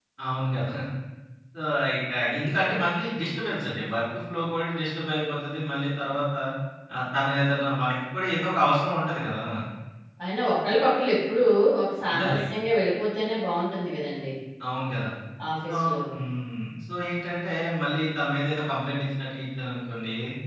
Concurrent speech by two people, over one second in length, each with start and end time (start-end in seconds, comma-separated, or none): none